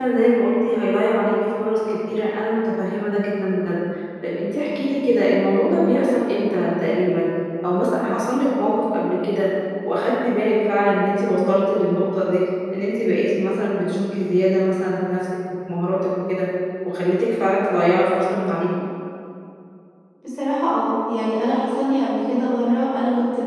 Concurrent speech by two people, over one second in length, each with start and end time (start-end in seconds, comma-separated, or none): none